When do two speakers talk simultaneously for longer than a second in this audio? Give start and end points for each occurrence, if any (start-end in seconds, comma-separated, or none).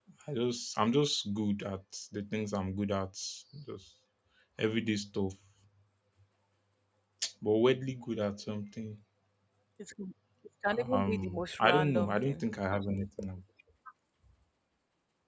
10.8-12.4